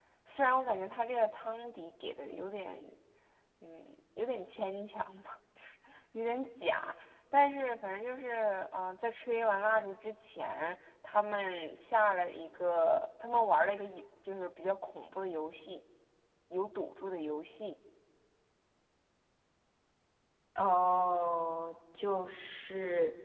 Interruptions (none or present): none